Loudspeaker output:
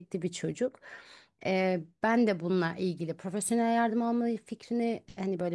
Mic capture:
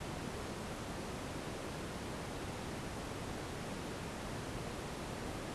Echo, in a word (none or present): none